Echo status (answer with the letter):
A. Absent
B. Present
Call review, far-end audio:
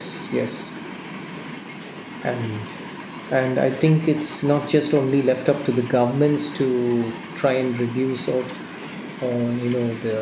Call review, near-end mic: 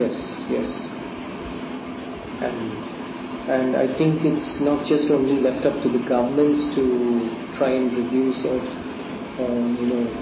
B